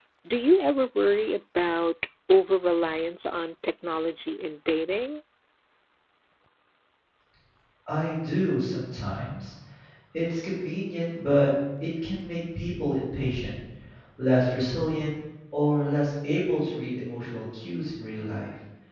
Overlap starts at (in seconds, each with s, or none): none